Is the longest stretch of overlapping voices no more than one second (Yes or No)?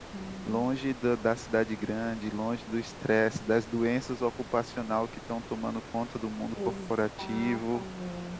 No